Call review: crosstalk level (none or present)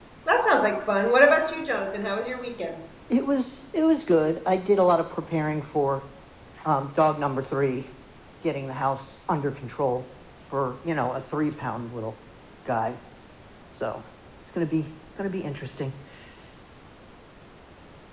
none